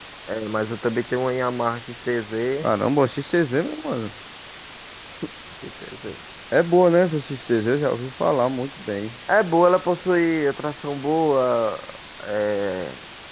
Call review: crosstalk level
none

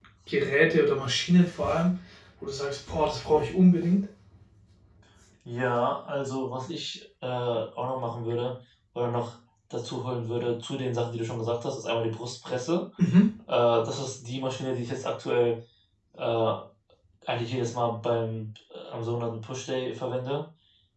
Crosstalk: none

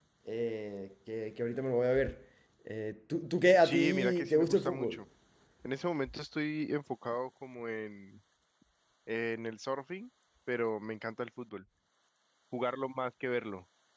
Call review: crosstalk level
present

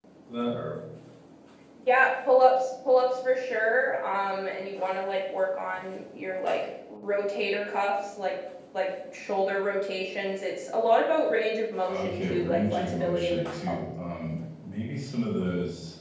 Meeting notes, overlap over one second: present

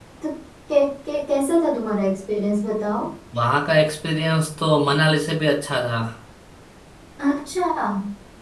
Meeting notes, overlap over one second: none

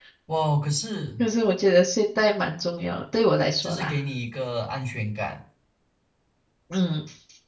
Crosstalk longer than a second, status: none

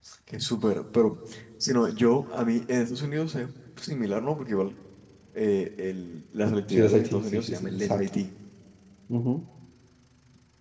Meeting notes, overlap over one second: present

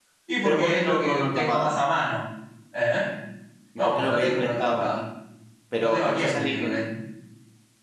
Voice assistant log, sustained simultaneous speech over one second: present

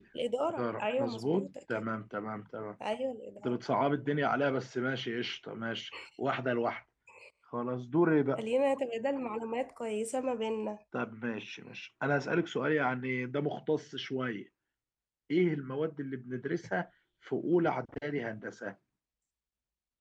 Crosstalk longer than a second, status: present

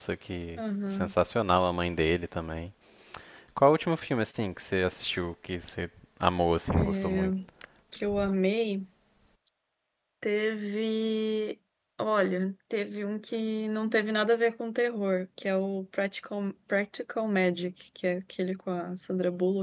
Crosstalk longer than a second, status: none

